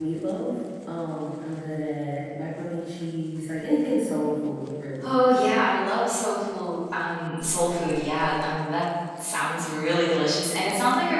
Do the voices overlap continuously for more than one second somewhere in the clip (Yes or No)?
No